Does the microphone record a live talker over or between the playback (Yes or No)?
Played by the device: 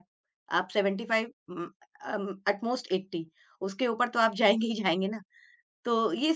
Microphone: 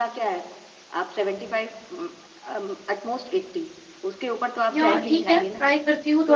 Yes